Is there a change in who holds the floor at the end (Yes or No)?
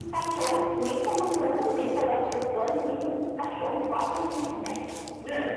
Yes